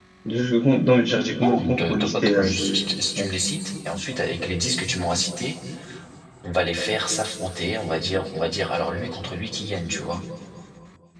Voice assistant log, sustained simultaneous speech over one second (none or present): present